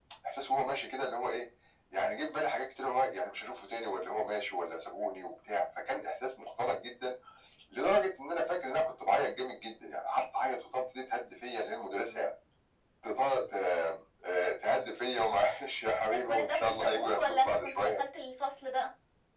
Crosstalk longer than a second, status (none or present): present